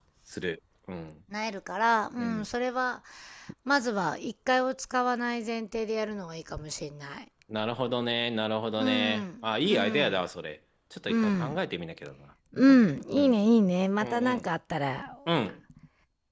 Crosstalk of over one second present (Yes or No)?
Yes